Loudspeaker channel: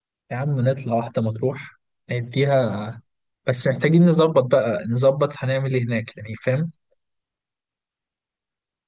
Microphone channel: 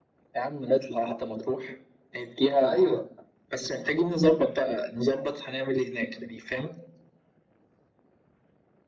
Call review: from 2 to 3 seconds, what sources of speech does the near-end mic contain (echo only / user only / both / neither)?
both